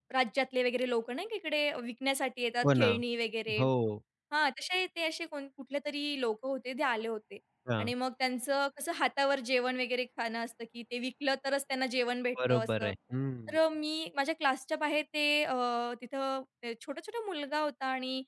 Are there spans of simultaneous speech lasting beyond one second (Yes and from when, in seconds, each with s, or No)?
No